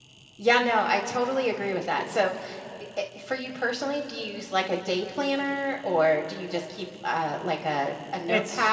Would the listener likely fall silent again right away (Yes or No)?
No